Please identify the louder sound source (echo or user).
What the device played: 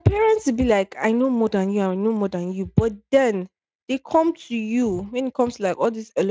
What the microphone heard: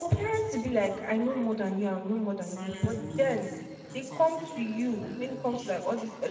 echo